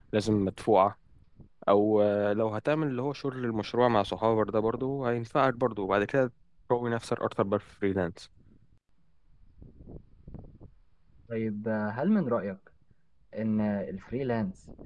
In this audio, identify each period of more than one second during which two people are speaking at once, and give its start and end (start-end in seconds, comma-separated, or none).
none